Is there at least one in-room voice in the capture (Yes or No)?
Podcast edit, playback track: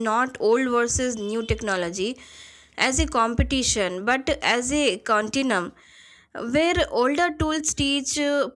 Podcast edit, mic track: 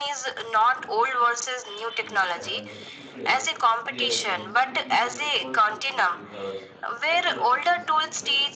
Yes